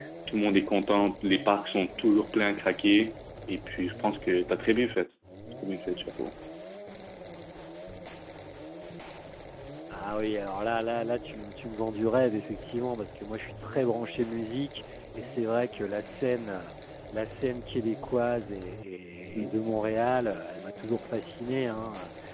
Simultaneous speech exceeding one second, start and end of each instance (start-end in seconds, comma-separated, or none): none